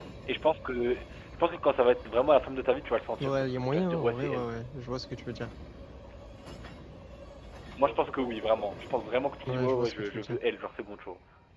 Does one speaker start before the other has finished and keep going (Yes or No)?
Yes